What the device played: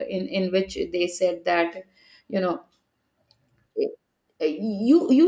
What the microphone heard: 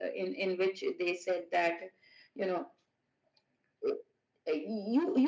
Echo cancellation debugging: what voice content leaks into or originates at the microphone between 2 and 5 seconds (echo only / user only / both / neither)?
echo only